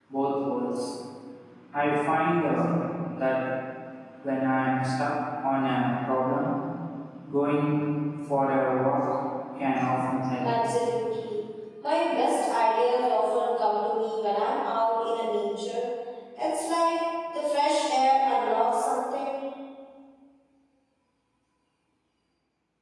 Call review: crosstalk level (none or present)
none